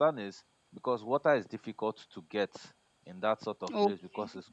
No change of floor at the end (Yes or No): Yes